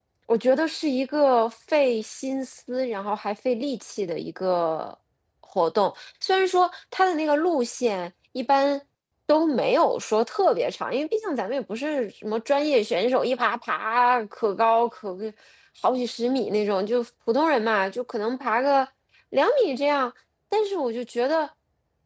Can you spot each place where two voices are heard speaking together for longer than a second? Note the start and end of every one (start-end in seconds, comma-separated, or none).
none